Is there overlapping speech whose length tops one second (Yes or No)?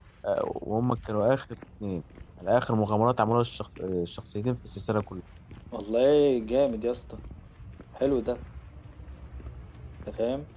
No